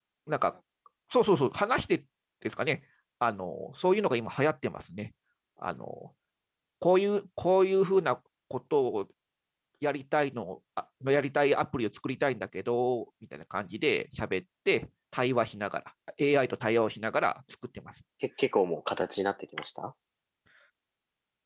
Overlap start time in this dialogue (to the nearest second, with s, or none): none